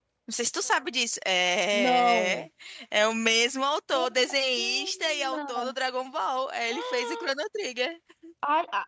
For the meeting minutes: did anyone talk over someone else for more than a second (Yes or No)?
Yes